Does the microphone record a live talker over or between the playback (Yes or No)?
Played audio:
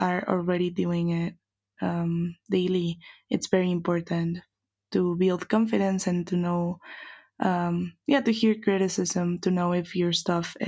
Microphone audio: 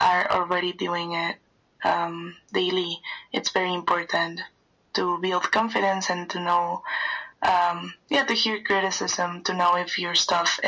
No